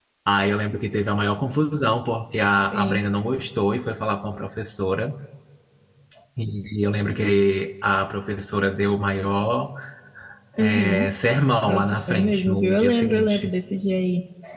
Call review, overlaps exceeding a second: present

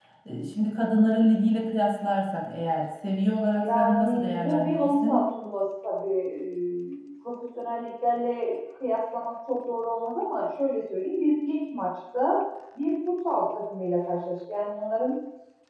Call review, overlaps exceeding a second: present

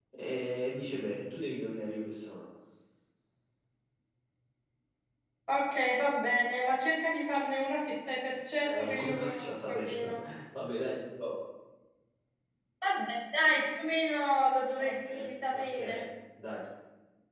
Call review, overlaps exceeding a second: present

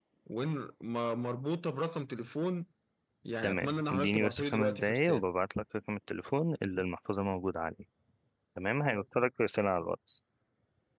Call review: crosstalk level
present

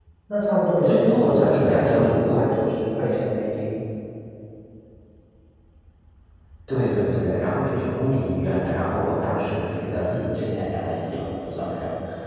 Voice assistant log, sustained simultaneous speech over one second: present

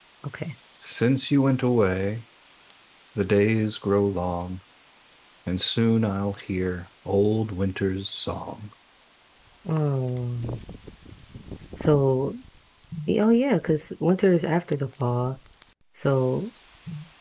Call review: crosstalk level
none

